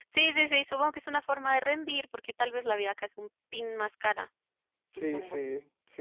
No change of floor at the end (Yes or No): No